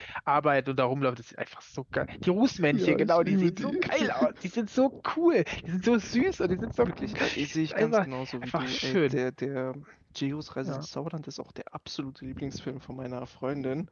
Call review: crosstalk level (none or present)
present